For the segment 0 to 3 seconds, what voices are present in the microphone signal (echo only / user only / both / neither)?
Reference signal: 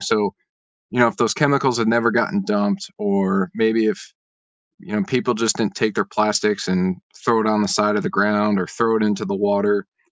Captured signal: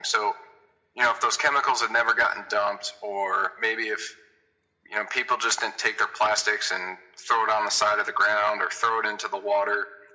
echo only